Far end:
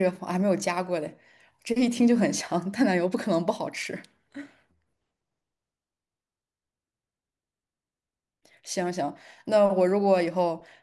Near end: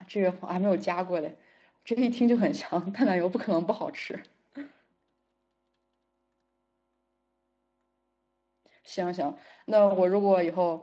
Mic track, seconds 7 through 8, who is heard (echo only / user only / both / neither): neither